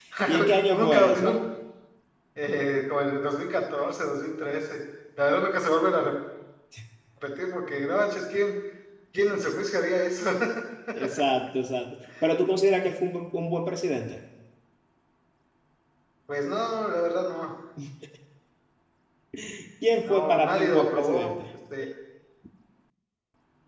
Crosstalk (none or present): present